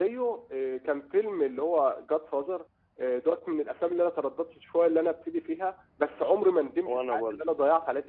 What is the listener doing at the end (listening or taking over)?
listening